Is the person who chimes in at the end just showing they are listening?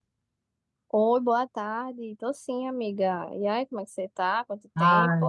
No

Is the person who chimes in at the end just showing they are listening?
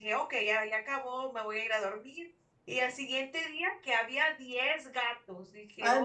Yes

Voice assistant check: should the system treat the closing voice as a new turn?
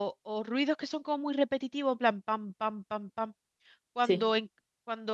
No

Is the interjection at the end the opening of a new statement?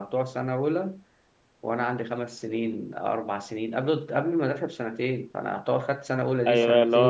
Yes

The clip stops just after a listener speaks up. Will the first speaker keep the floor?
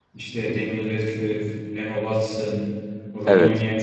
Yes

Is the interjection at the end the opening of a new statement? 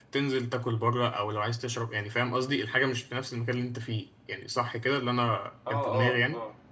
Yes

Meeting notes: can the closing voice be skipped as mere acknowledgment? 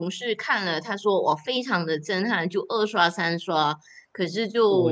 No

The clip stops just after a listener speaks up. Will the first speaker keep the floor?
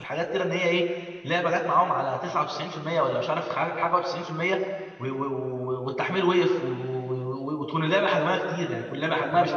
No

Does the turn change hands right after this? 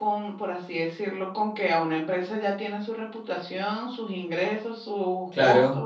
No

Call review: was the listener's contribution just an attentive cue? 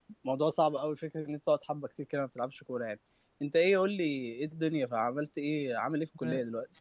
No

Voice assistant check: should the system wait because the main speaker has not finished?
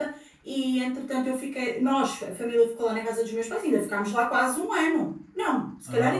Yes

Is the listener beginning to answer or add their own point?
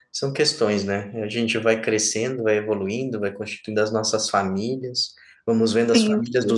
No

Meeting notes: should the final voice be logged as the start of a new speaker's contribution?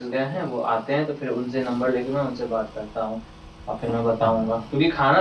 No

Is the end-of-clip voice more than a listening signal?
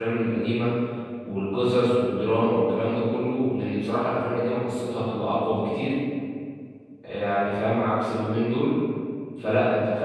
No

